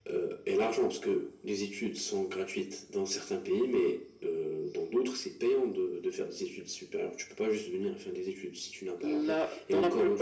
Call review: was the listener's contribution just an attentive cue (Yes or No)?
No